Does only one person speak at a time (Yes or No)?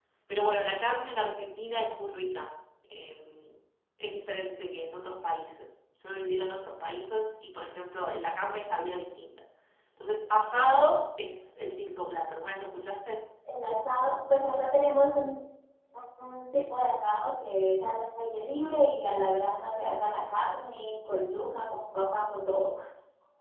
Yes